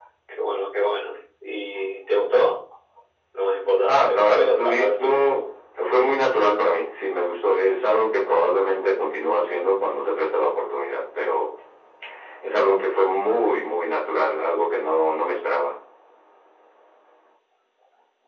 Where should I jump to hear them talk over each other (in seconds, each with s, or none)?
3.9 s